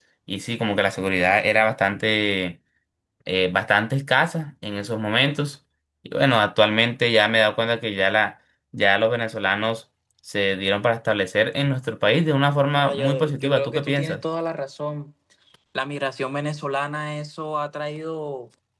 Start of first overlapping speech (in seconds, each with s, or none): 12.8 s